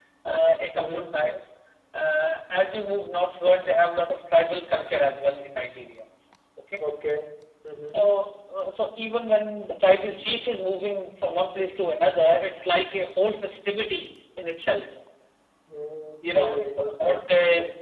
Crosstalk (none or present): present